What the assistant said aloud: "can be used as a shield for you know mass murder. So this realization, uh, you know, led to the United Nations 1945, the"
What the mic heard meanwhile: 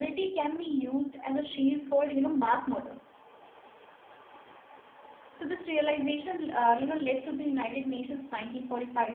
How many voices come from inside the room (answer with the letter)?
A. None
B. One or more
A